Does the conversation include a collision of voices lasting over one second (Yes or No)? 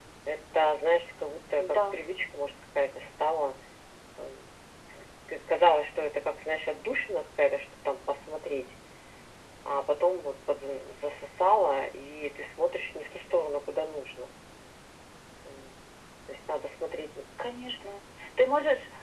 No